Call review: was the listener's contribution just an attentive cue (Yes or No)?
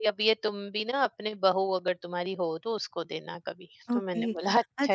No